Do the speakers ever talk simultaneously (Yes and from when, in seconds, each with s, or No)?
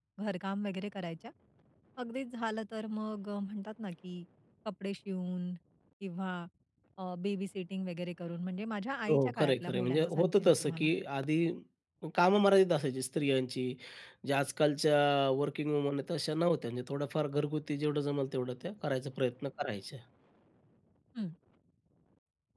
Yes, from 9.1 s